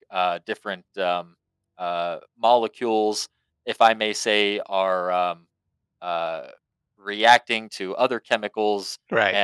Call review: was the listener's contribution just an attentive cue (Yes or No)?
Yes